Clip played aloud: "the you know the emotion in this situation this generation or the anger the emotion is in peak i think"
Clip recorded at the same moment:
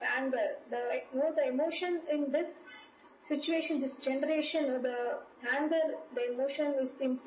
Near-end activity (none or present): none